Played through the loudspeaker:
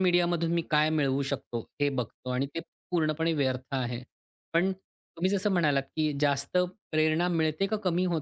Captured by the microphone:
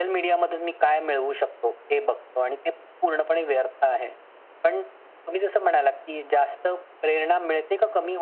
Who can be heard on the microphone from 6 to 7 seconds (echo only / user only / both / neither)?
echo only